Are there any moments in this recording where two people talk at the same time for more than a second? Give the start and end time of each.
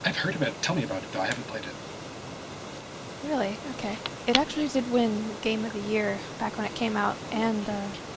none

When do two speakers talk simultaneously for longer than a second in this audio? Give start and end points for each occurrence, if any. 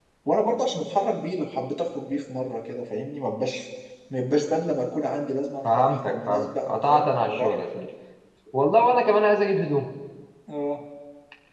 5.8-7.5

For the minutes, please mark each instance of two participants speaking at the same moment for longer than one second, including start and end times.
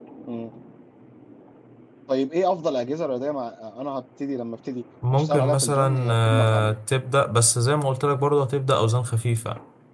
5.1-6.8

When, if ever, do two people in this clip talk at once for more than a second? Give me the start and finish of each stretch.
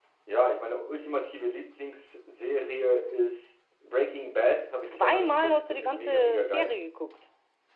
4.8-6.8

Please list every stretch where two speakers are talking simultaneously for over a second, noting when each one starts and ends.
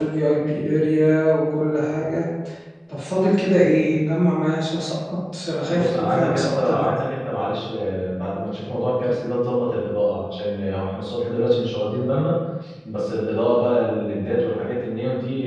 5.7-6.9

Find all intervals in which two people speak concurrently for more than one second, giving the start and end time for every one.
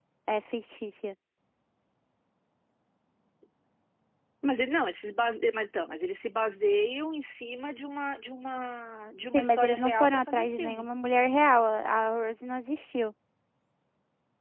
9.3-10.9

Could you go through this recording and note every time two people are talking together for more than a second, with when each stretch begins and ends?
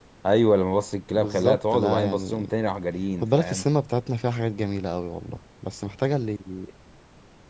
1.1-2.5

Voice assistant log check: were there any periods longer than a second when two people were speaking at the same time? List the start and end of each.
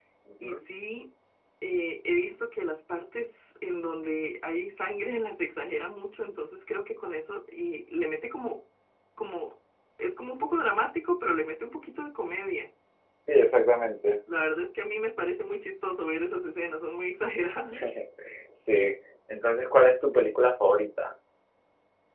none

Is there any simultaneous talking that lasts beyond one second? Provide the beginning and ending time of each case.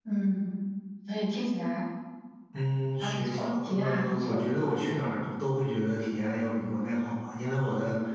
3.0-4.7

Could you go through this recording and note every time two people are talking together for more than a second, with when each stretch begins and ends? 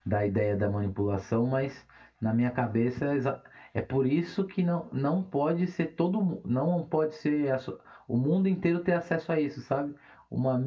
none

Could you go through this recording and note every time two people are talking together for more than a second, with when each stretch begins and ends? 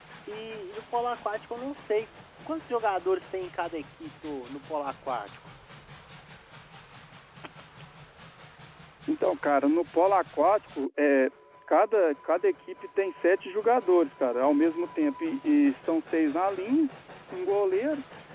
none

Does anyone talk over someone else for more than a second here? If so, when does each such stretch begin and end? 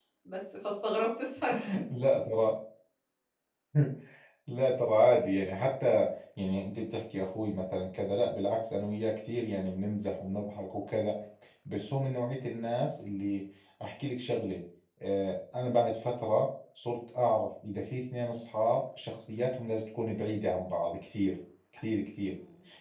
none

